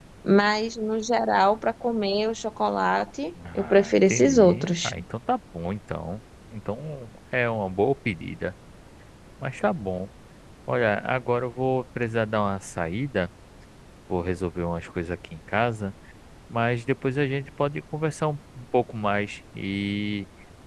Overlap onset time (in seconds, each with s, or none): 3.4 s